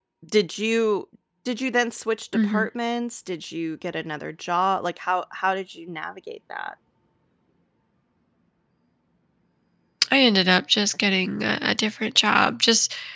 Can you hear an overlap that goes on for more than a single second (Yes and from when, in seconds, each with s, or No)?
No